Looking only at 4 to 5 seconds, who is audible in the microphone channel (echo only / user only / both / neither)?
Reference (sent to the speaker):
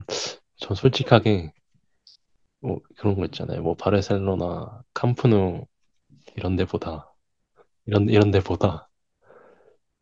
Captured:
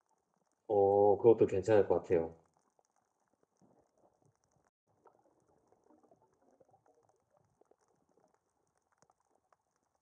neither